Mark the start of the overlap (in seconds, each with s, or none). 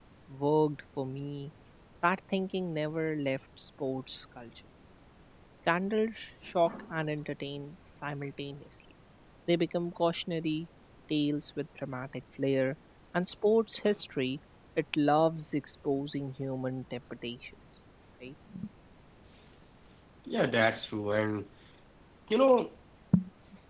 none